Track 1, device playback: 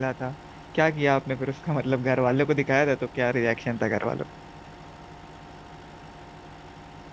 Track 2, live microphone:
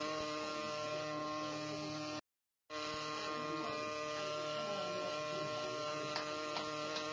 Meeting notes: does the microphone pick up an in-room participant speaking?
No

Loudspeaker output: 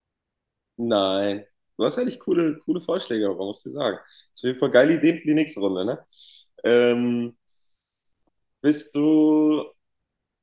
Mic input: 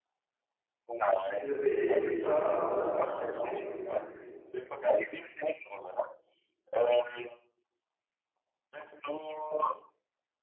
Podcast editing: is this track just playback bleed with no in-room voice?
No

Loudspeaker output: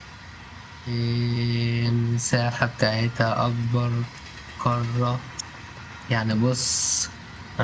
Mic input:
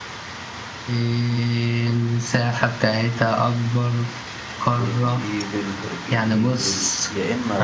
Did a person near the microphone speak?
Yes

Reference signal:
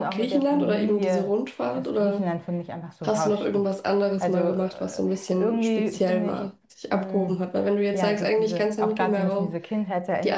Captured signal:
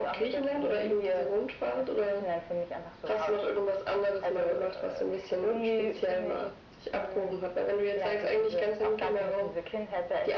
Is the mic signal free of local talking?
Yes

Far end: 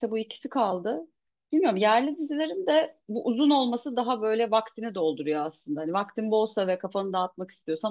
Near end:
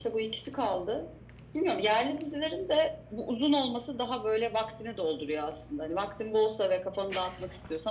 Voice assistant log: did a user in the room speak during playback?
No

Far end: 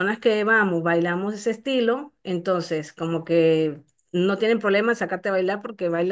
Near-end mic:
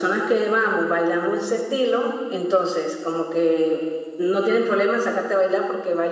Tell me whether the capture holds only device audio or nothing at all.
Yes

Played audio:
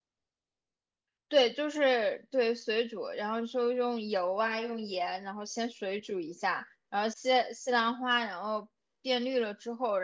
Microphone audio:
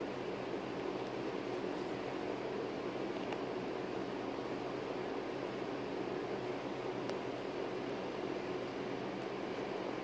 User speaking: No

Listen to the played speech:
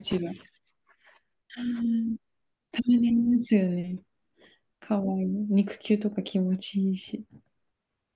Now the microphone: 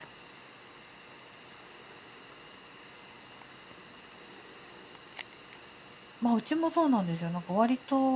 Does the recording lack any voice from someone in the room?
No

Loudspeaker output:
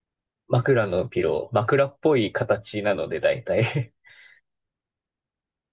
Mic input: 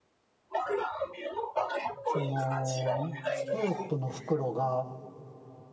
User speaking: Yes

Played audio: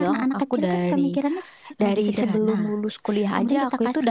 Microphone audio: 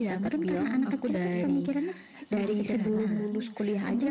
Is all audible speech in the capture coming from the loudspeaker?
No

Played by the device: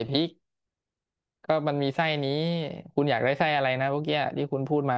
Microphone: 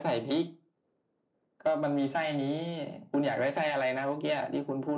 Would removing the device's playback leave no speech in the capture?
Yes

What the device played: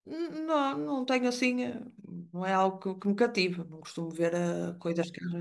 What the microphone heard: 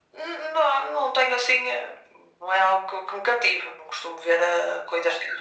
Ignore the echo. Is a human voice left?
No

